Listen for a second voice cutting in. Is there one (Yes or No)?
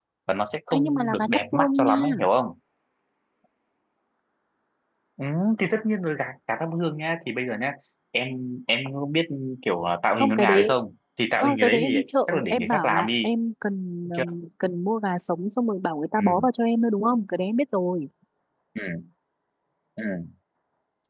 Yes